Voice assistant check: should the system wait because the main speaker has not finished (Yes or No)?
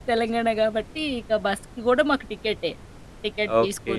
No